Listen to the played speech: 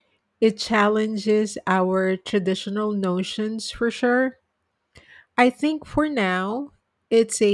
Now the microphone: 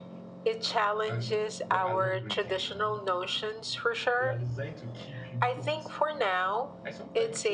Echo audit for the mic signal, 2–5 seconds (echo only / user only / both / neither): both